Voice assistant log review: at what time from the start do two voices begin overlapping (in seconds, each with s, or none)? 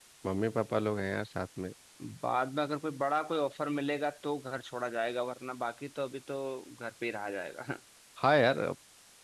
none